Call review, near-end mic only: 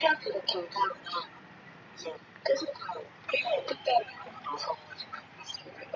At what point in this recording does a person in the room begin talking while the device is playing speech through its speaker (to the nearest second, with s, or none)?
none